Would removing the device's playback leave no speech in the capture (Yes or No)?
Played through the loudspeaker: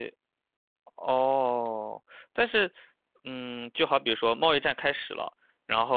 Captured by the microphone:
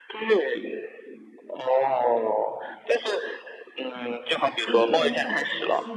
No